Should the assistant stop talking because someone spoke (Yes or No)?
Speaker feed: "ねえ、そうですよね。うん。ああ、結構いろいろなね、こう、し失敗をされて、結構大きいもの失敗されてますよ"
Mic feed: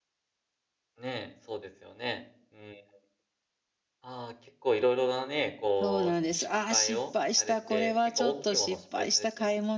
Yes